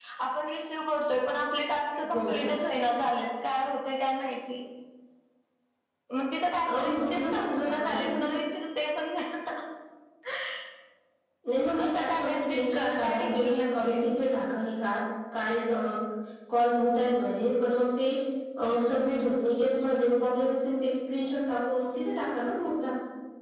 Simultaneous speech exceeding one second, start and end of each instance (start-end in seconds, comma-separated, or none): 6.7-8.3, 11.8-14.0